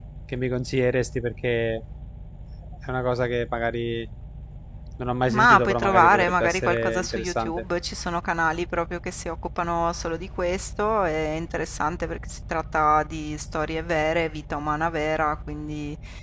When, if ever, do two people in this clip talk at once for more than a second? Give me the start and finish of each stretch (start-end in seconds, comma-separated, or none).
5.3-7.6